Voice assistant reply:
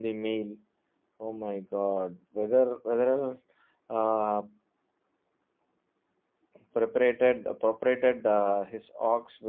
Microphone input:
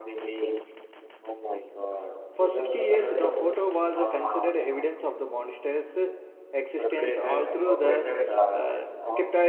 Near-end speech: present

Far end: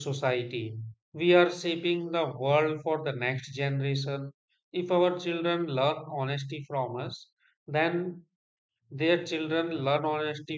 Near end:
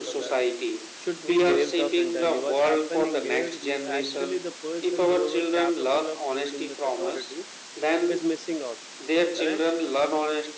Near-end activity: present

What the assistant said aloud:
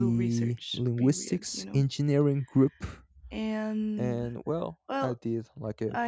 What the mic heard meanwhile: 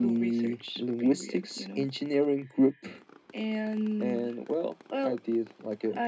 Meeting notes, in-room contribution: none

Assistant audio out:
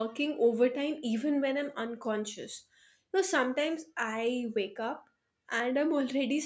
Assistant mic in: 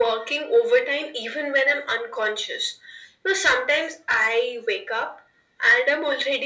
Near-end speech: none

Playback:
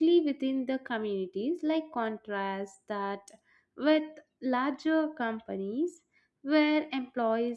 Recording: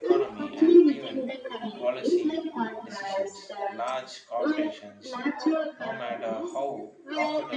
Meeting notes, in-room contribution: present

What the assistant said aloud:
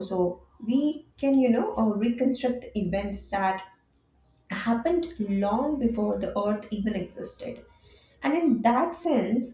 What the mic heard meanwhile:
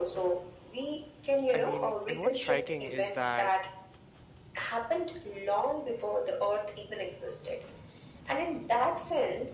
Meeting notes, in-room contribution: present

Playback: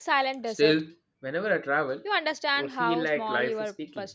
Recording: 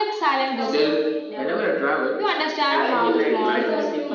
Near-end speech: present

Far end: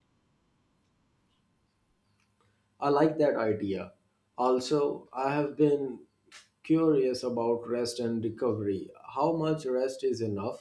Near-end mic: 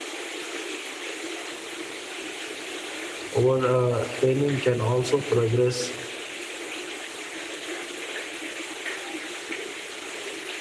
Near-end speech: present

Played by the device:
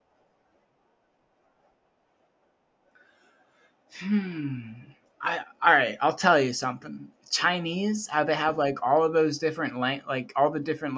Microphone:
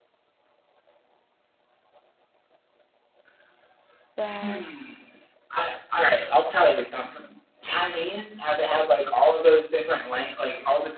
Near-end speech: present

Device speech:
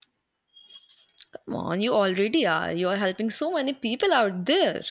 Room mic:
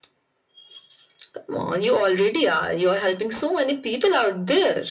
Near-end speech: none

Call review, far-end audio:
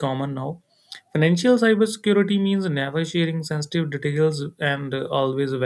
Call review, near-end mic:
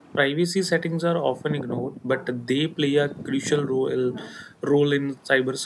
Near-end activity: present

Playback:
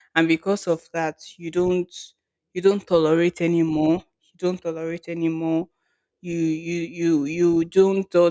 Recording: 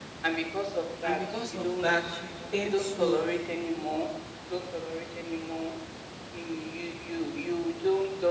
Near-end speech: present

